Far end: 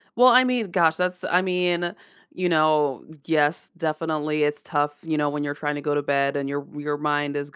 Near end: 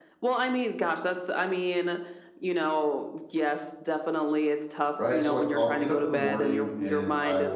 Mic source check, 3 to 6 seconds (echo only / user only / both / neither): both